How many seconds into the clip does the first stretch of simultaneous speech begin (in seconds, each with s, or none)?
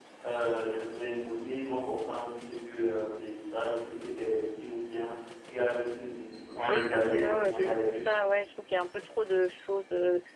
6.7 s